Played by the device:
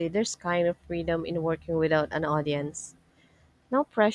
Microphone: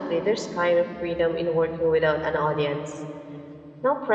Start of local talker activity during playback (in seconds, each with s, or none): none